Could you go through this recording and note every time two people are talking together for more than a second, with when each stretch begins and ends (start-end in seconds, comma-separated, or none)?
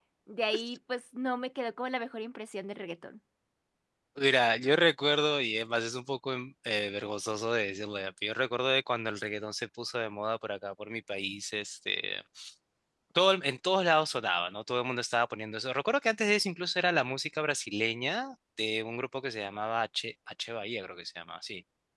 none